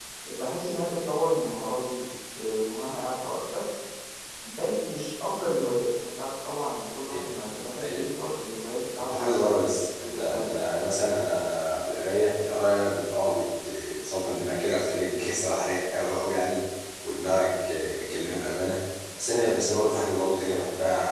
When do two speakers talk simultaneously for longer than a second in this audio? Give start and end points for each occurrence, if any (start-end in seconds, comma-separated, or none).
9.1-10.5